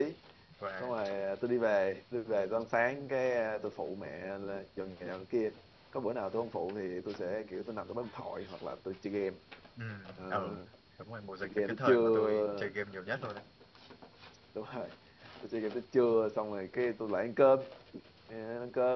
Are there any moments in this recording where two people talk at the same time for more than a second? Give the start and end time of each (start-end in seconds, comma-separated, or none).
11.4-12.7